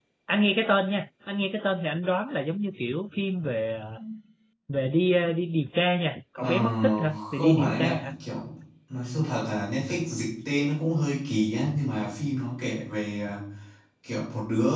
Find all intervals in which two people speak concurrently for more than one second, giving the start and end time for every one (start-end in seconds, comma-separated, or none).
6.4-8.1